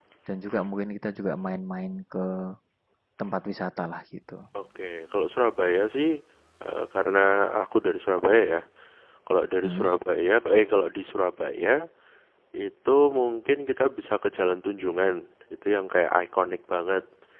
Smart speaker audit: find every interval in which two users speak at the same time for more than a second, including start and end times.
none

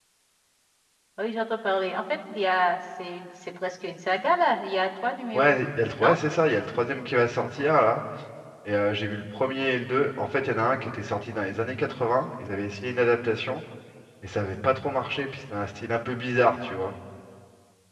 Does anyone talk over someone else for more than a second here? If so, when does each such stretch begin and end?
none

